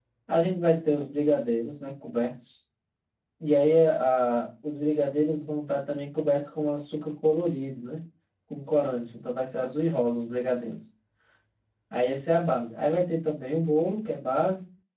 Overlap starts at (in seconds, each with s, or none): none